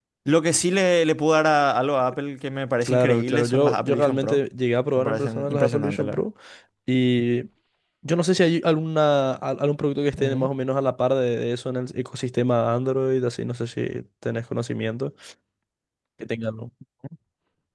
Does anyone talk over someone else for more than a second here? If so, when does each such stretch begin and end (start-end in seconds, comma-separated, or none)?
2.8-4.4, 5.0-6.2